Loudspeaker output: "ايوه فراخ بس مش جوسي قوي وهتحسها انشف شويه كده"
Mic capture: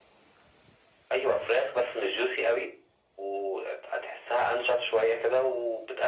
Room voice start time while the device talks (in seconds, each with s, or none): none